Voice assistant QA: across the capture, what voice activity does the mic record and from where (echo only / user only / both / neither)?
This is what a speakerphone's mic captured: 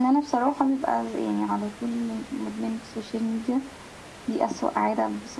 echo only